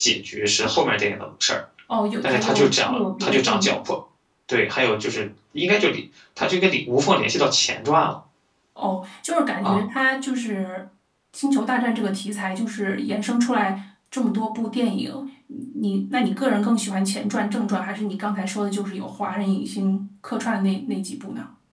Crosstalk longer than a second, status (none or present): present